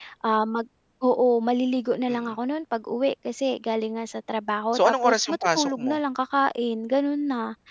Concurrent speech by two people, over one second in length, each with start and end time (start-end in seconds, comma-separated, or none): 4.7-6.0